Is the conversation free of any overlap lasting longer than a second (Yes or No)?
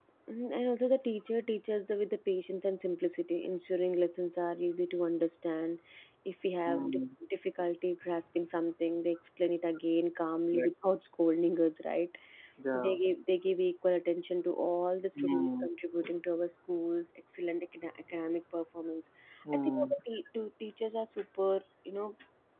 Yes